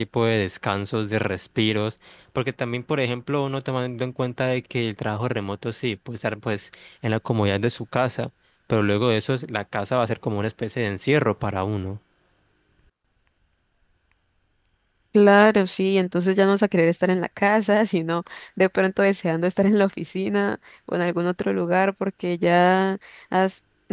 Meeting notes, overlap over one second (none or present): none